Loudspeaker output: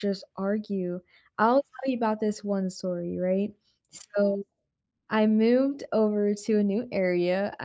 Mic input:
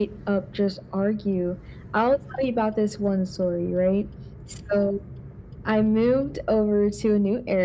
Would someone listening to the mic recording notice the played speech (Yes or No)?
Yes